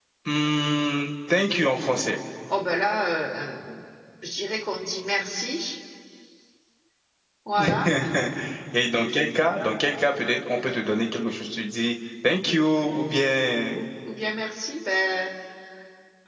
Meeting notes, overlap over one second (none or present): none